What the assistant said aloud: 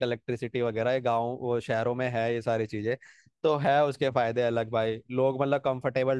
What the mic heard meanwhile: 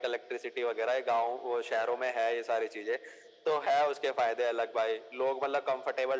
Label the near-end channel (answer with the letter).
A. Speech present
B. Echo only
B